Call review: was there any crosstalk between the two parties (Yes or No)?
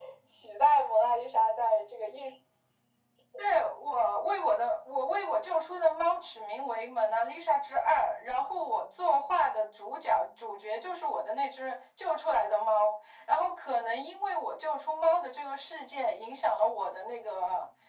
No